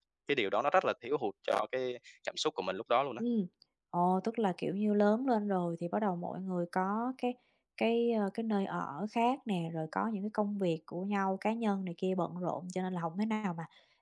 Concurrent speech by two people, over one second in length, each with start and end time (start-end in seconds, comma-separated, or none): none